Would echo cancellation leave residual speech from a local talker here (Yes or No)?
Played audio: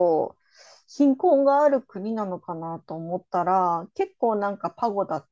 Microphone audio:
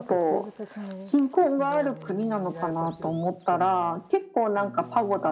Yes